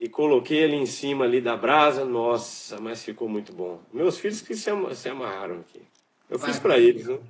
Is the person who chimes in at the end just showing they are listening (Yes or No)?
No